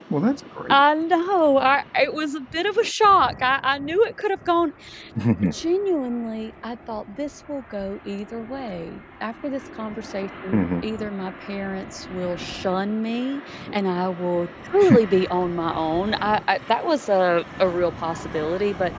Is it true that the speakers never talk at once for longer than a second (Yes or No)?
Yes